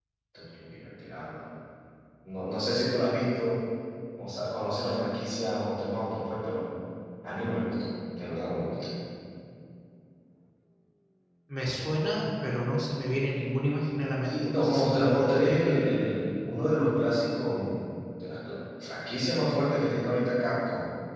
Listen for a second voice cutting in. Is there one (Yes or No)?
Yes